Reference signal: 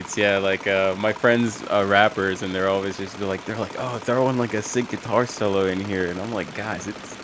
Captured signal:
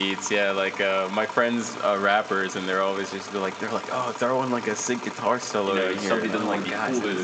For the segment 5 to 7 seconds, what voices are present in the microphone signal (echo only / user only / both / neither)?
both